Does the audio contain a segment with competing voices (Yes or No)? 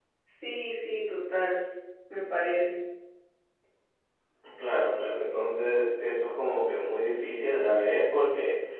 No